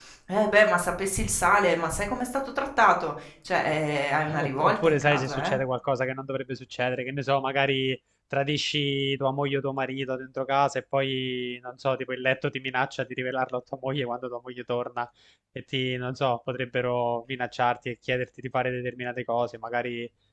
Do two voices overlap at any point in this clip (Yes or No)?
Yes